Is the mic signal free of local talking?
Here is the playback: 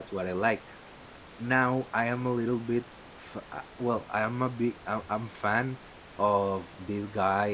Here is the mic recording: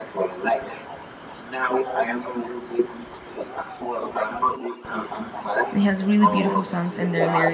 No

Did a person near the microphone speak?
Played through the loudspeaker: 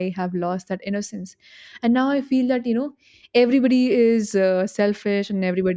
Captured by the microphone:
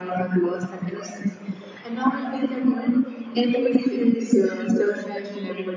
No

